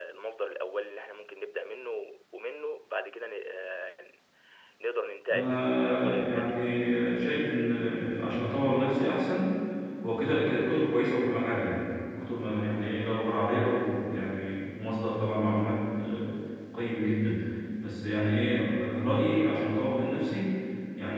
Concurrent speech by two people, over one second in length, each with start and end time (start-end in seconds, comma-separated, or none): 5.3-6.6